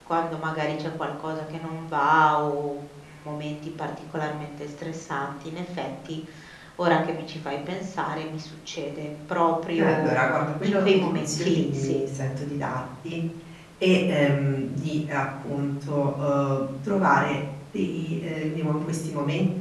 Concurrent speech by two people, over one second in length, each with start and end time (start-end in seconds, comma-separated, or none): 10.6-12.0